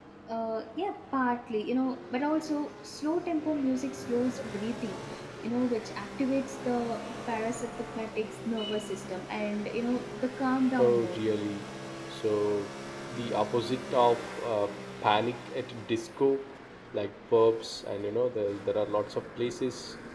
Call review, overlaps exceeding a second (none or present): none